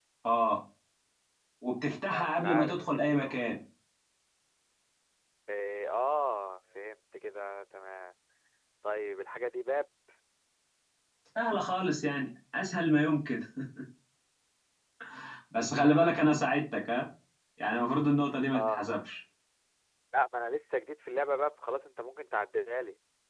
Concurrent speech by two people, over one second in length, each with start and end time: 2.1-3.3

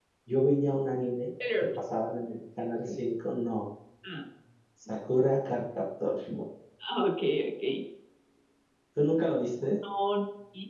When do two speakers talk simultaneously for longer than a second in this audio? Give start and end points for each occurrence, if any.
none

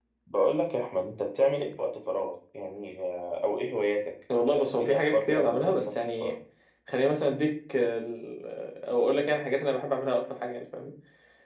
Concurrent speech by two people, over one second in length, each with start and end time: 4.5-6.3

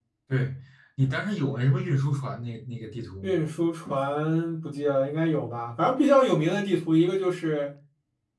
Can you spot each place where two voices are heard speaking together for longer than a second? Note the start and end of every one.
none

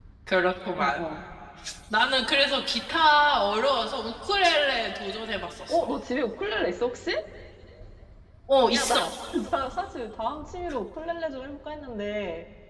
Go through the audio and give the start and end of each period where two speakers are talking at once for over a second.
none

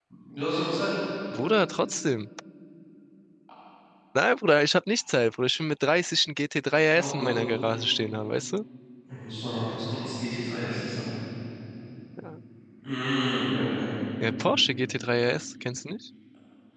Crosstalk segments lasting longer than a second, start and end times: none

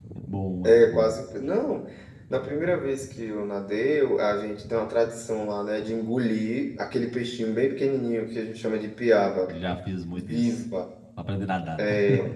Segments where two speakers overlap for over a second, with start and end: none

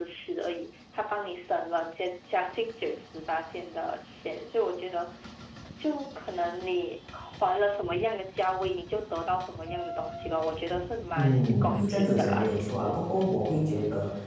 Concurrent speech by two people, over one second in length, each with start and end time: 11.2-13.0

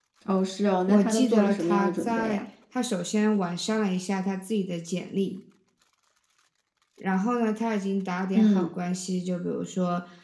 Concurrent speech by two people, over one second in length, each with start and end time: 0.9-2.4

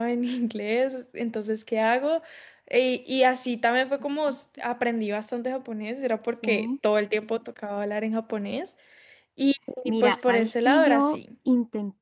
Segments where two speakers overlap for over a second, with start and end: 9.8-11.2

